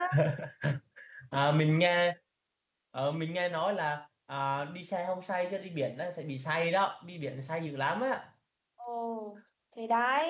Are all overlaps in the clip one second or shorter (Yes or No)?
Yes